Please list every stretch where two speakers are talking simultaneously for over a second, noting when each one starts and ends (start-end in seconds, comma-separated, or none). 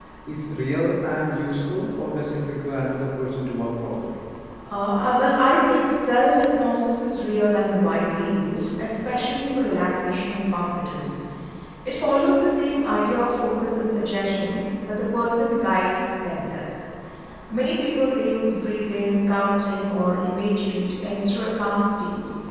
none